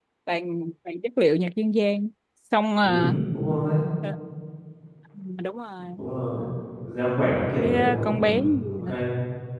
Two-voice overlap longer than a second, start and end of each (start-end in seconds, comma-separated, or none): 7.6-8.9